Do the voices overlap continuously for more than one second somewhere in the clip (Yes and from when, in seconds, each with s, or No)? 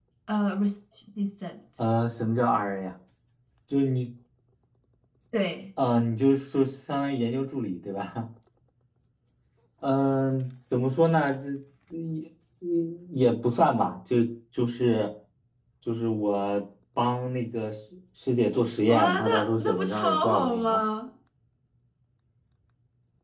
Yes, from 18.8 s